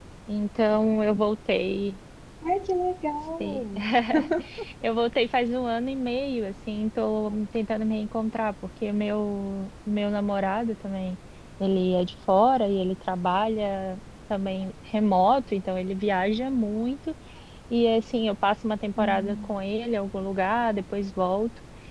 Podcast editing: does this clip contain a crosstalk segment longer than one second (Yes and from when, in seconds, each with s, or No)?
No